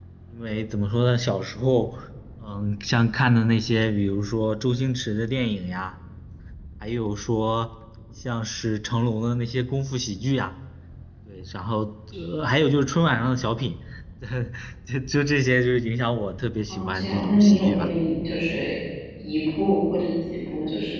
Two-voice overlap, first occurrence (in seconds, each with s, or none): 16.7 s